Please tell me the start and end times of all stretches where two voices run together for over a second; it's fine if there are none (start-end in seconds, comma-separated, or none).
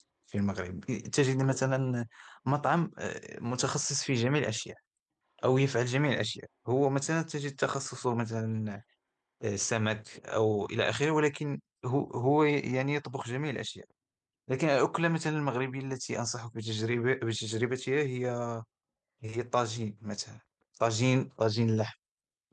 none